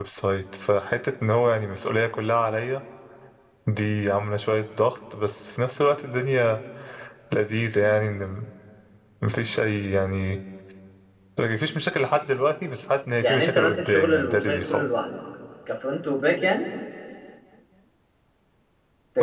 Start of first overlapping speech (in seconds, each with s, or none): 13.2 s